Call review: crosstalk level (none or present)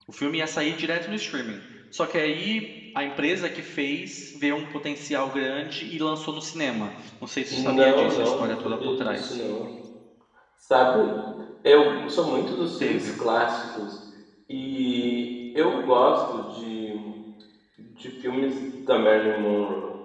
present